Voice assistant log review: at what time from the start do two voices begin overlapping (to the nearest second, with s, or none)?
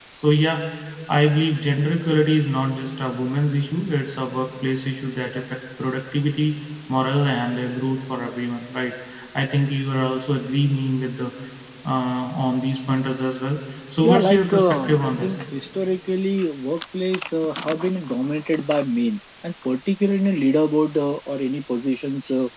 14 s